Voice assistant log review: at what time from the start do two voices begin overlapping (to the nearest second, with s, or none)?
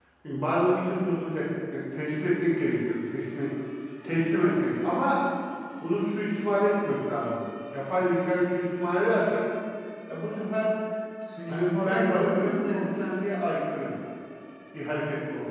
11 s